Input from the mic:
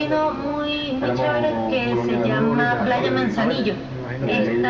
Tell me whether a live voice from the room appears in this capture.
Yes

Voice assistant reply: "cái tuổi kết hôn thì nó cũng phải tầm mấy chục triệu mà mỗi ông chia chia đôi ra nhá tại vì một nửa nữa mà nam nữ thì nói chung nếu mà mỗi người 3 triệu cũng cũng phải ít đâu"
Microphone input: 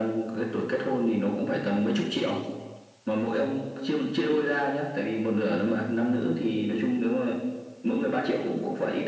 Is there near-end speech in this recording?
No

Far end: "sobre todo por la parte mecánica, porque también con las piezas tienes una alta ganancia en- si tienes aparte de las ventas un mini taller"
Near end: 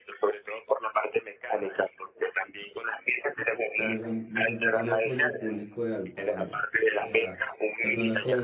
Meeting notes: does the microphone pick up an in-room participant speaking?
Yes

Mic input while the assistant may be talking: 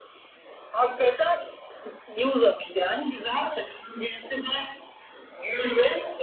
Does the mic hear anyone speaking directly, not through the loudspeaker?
No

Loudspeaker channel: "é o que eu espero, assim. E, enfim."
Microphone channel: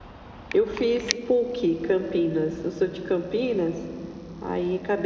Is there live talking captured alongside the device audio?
Yes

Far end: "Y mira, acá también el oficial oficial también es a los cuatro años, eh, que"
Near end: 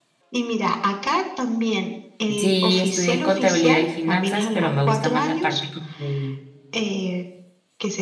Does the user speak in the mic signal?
Yes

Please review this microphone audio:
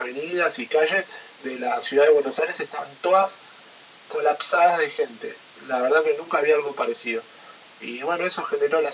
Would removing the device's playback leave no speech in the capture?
Yes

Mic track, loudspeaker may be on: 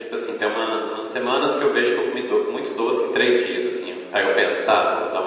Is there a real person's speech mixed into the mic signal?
No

